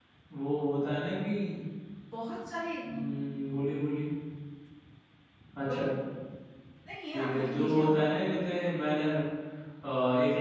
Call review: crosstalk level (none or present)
present